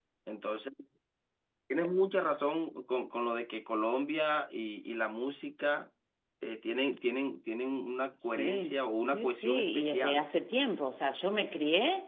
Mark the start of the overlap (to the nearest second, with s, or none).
8 s